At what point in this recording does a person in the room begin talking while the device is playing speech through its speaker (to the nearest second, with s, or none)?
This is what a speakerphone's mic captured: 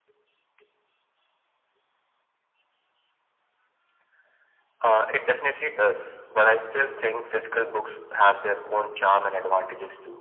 none